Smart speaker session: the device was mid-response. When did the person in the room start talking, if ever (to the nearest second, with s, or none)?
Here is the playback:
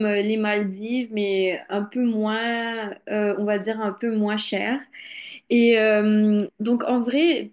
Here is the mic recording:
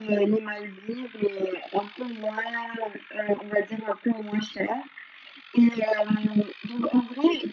none